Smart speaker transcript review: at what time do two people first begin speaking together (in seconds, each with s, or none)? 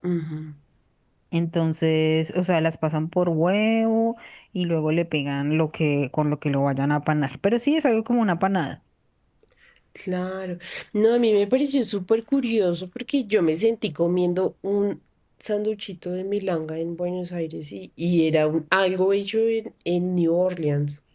none